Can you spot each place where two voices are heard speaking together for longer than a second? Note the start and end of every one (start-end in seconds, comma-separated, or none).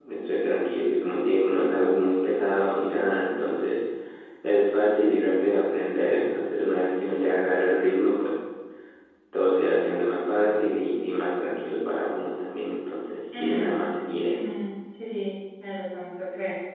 none